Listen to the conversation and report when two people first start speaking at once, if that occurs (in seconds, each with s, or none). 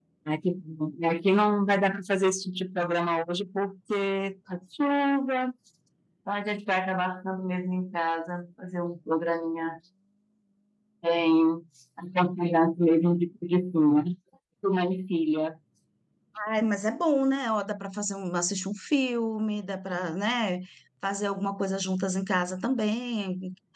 none